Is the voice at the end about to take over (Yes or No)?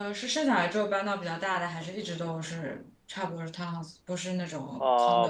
Yes